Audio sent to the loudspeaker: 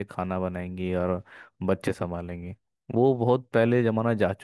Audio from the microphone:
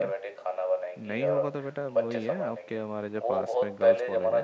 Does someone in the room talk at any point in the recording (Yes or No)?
Yes